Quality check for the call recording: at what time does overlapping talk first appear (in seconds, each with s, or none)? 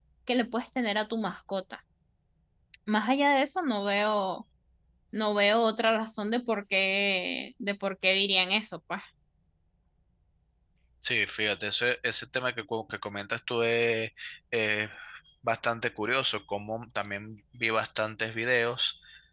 none